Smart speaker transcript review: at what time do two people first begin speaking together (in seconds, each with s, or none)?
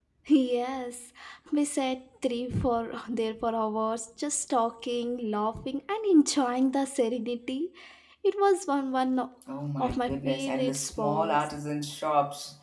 9.8 s